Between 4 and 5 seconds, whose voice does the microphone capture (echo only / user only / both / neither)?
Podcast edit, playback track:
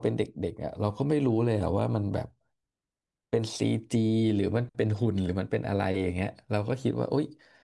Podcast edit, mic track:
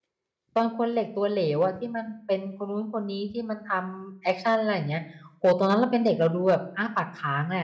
user only